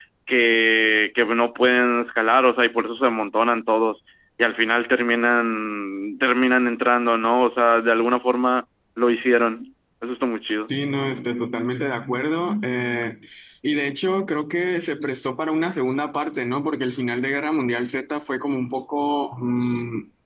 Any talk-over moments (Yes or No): No